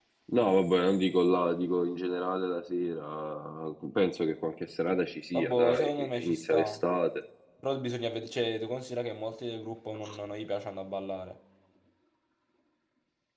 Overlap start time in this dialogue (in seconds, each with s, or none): 5.3 s